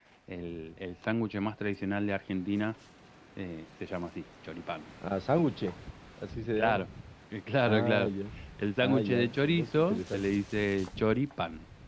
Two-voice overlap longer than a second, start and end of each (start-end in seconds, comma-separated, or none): 8.8-10.2